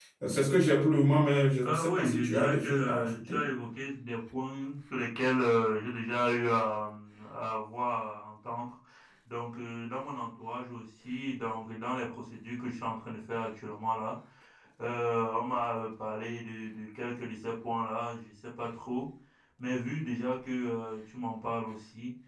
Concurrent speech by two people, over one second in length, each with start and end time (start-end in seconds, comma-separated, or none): 1.6-3.5